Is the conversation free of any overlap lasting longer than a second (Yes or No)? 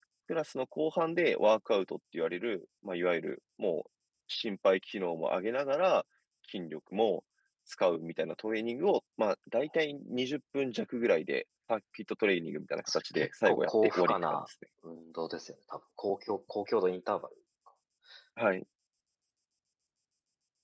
No